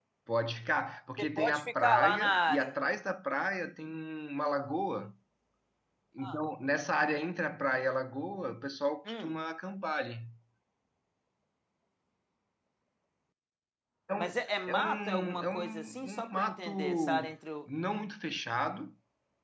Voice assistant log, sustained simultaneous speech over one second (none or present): present